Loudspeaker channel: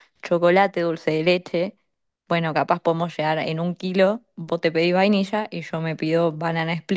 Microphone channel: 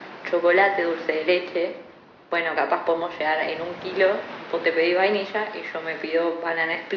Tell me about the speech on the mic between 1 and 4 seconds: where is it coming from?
echo only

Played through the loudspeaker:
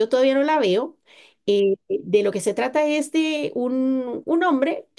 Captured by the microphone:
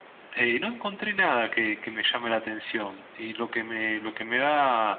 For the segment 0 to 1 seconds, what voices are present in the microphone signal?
user only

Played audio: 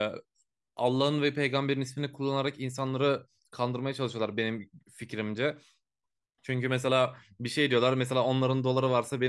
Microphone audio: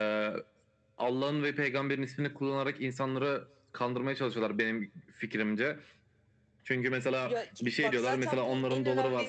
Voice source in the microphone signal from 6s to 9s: both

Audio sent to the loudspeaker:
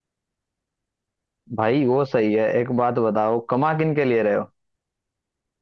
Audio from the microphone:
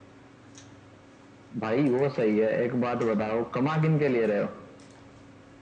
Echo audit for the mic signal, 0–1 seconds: neither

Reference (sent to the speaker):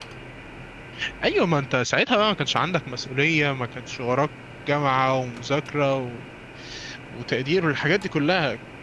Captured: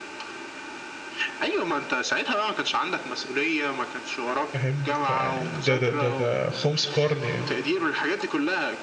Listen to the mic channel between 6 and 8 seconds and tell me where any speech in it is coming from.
both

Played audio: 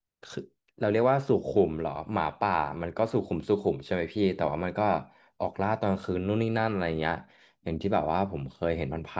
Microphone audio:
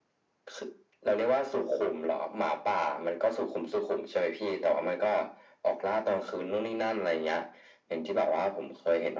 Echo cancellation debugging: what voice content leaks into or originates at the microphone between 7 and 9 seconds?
echo only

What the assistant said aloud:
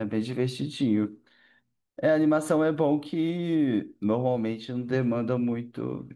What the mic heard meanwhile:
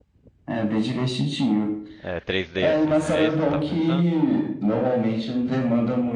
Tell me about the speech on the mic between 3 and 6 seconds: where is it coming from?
both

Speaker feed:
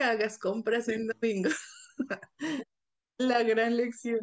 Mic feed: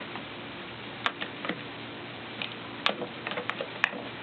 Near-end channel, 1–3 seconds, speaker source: neither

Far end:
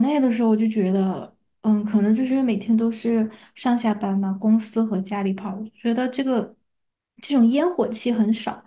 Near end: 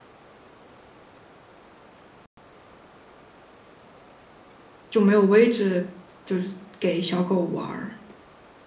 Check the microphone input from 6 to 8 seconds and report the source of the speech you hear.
user only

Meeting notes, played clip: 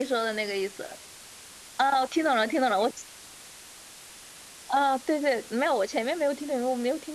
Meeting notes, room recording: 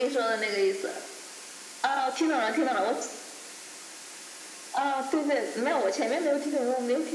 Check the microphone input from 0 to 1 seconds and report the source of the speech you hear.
echo only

